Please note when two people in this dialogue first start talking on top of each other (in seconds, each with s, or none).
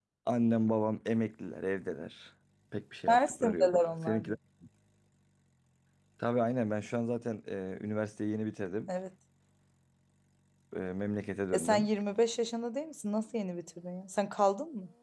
3.1 s